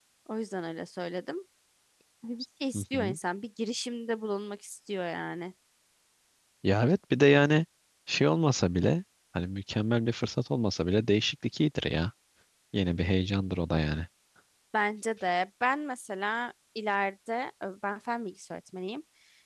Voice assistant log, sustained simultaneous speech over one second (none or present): none